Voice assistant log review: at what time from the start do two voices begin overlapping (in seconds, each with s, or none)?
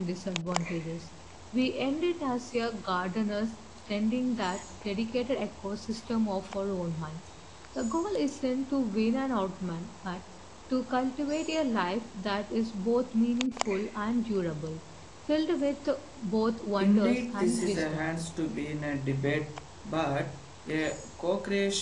16.8 s